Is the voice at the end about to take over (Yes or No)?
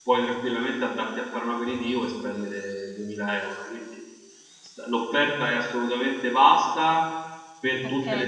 Yes